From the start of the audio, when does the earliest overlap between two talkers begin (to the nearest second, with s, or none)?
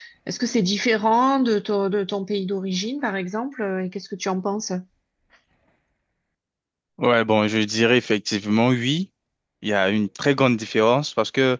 none